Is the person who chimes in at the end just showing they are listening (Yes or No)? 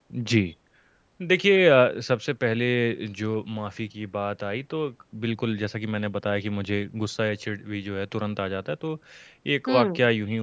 Yes